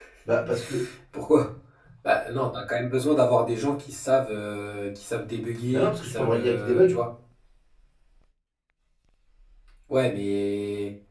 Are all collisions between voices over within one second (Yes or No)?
No